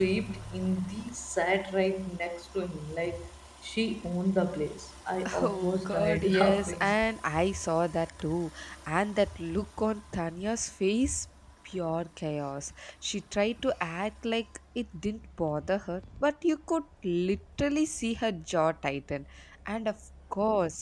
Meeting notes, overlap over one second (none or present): present